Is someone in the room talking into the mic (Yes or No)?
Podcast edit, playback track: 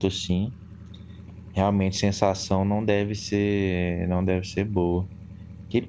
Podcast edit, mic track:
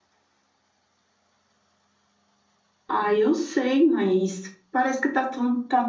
Yes